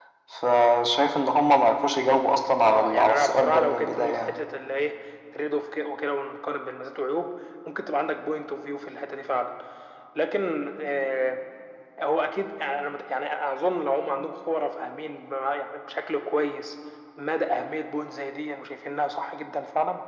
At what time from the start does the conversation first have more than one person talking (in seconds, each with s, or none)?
2.6 s